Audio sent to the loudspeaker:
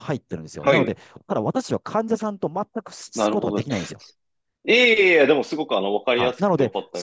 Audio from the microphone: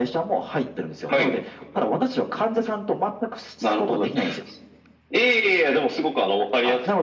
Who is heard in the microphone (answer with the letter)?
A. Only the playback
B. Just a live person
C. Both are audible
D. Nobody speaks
A